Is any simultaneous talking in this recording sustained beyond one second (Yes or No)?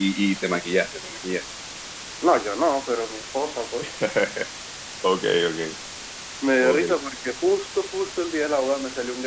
No